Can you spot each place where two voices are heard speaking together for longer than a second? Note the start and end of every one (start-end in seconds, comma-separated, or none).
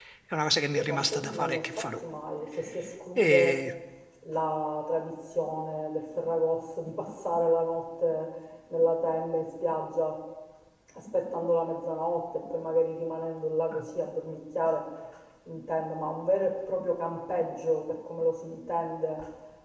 0.7-1.9